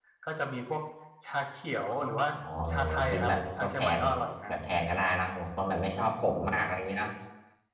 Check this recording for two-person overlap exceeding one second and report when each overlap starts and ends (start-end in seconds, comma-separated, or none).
2.7-4.0